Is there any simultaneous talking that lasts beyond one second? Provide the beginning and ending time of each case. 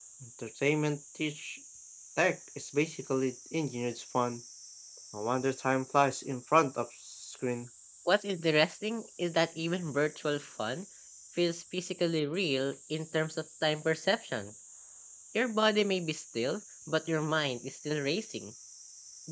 none

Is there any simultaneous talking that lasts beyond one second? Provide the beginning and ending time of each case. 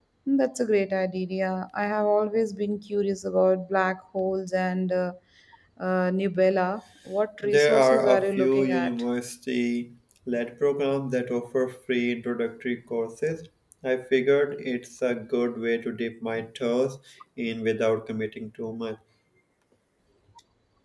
7.4-8.9

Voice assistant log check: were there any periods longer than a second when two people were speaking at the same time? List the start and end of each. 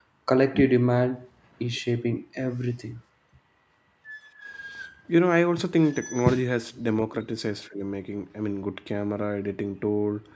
none

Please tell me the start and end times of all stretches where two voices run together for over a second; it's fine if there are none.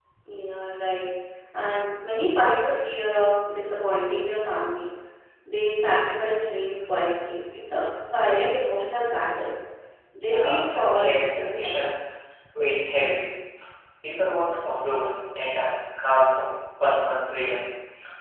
10.2-11.9

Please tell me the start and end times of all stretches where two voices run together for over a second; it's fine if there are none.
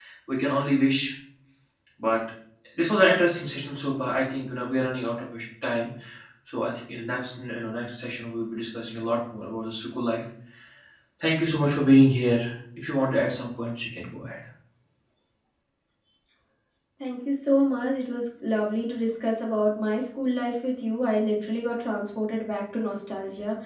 none

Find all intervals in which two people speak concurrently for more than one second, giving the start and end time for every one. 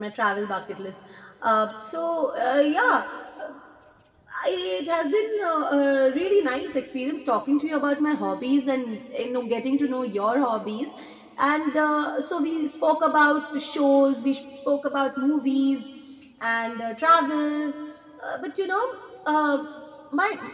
none

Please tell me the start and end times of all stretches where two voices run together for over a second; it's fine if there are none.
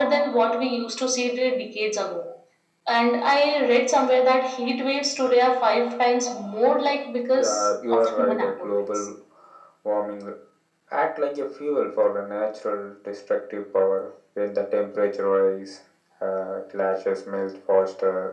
7.3-9.1

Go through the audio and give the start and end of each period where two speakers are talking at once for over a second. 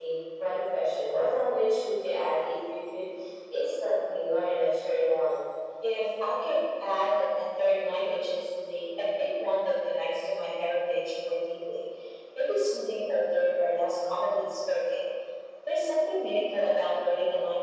none

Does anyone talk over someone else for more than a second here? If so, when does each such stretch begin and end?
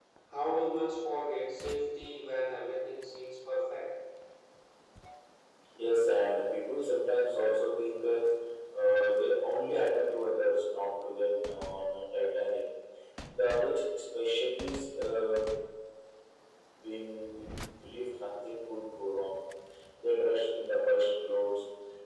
none

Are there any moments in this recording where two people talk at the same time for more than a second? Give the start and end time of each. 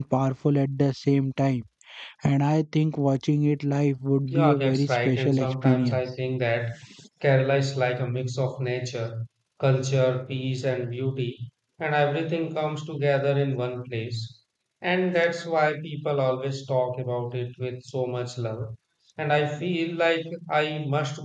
4.3-6.0

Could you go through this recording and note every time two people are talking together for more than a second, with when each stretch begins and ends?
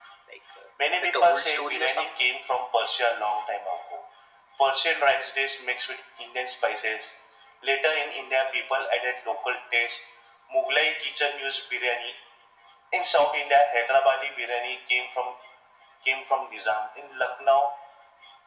0.9-2.3

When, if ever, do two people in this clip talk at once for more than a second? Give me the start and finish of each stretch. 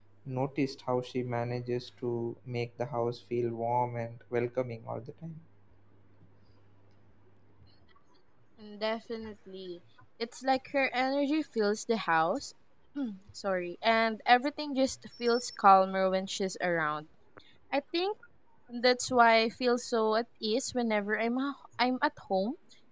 none

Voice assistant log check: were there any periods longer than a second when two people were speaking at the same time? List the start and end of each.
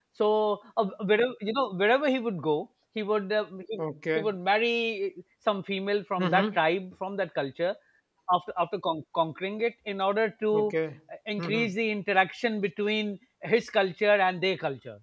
none

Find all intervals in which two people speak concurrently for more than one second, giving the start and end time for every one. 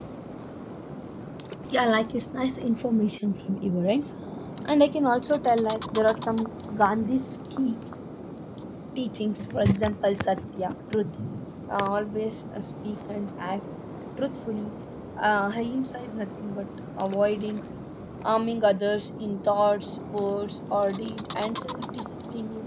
none

